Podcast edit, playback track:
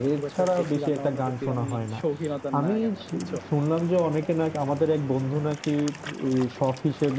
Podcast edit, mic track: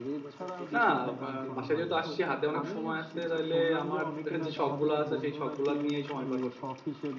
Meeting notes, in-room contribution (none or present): present